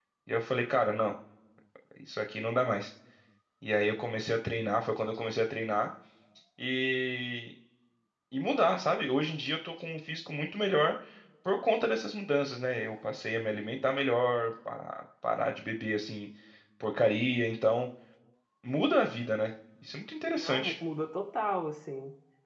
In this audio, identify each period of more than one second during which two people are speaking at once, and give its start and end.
none

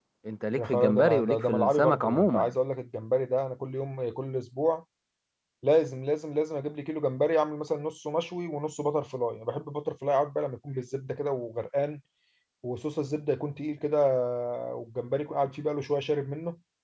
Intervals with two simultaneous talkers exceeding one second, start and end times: 0.6-2.5

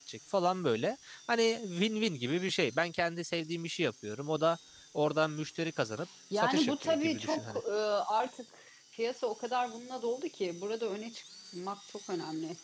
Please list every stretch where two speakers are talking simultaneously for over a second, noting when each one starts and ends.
6.3-7.6

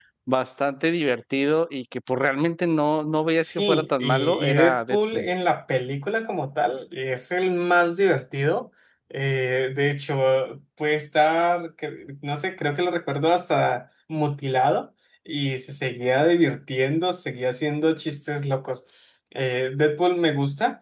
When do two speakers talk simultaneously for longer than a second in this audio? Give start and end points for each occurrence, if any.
3.4-5.3

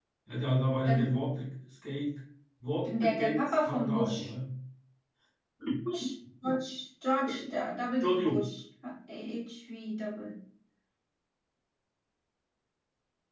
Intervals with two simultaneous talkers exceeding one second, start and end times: 2.8-4.3

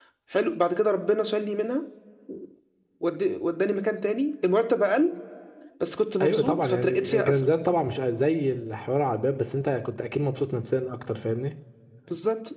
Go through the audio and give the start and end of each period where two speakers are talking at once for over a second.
6.2-7.5

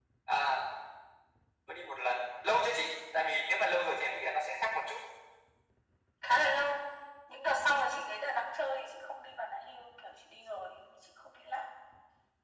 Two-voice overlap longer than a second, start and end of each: none

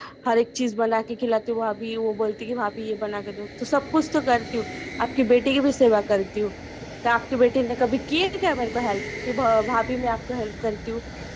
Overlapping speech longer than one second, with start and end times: none

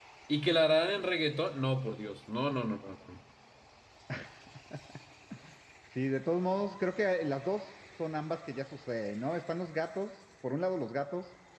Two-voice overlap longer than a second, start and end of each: none

